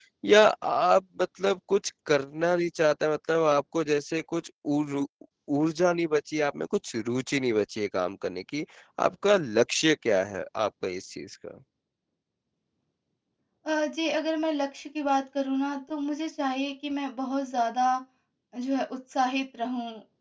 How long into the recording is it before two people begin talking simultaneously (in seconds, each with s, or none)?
none